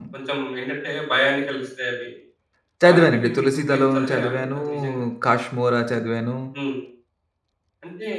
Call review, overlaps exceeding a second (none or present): present